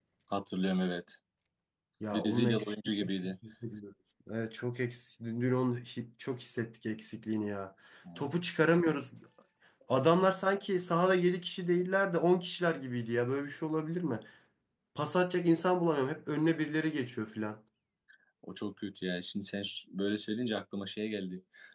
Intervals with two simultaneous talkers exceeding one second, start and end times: 2.1-3.3

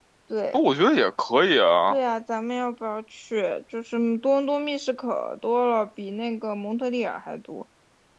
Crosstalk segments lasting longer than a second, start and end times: none

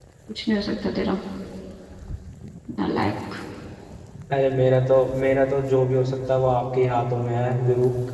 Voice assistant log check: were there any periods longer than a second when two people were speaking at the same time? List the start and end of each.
none

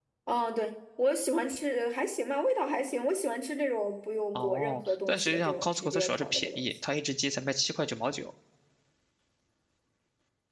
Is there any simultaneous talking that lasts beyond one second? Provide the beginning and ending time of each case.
4.3-6.7

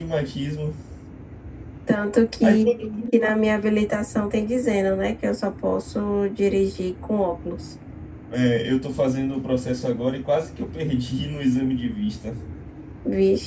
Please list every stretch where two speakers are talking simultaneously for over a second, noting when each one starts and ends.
none

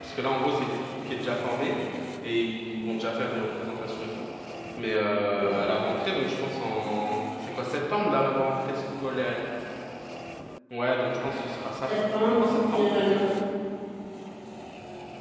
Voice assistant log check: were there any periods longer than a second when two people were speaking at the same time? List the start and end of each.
11.9-13.2

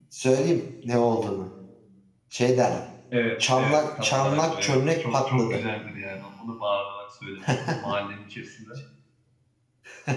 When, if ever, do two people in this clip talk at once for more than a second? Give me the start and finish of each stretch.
3.4-5.6

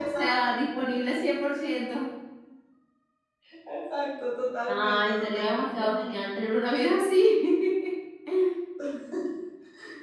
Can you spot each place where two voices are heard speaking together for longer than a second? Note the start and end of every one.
4.7-5.9

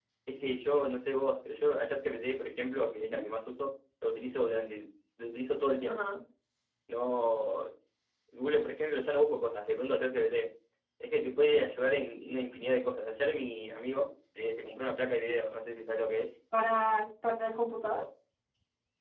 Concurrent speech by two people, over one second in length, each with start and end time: none

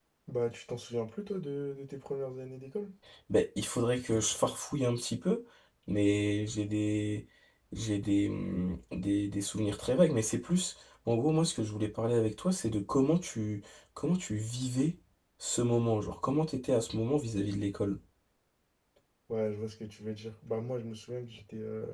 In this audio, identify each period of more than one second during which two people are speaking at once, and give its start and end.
none

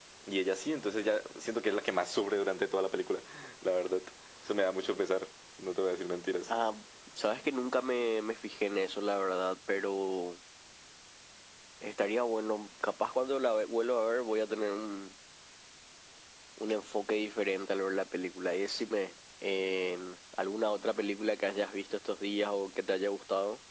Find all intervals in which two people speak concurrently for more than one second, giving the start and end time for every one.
none

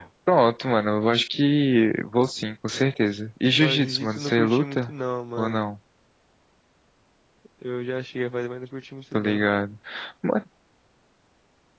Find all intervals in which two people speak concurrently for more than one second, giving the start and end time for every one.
3.6-4.9

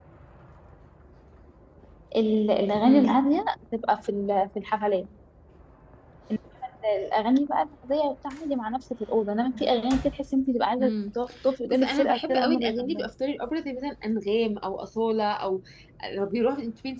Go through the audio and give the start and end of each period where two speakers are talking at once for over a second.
11.7-13.1

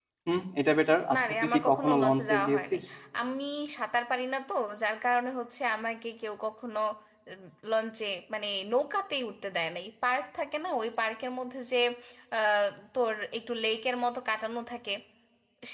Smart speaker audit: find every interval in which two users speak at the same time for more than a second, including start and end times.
1.1-2.8

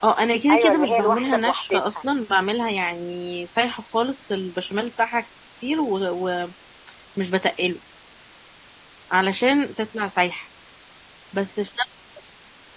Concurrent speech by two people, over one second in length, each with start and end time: 0.5-2.0

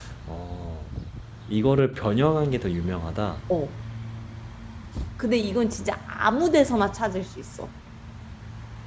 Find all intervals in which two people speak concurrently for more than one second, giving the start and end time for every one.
none

